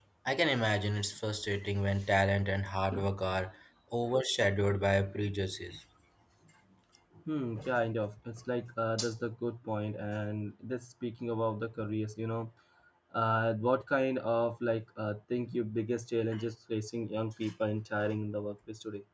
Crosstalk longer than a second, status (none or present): none